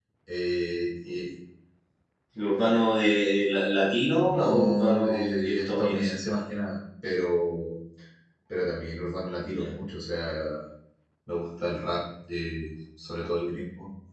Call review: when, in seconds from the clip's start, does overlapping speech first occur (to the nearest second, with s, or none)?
4 s